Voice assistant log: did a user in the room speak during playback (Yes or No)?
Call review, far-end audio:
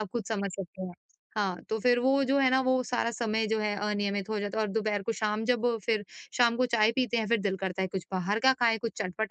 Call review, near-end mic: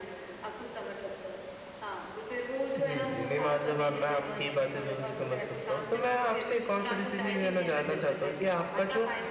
Yes